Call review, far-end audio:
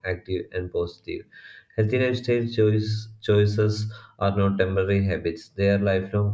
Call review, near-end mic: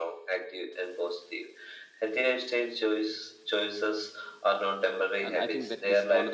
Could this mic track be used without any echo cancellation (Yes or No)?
No